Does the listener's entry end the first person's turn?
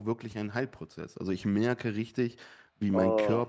No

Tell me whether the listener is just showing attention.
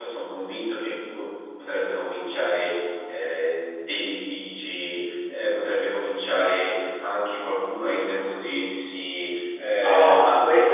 No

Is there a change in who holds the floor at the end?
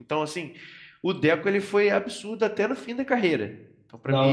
Yes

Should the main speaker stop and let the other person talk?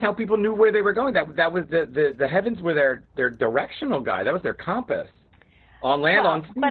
Yes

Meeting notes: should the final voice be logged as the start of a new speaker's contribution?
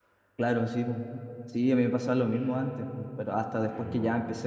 No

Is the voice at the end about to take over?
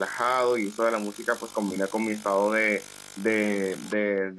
No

